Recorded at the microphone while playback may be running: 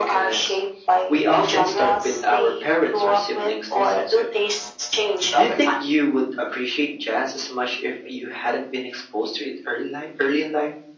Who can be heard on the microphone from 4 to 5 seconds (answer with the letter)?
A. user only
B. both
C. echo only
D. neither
C